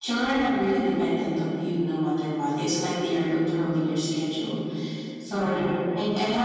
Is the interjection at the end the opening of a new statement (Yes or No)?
No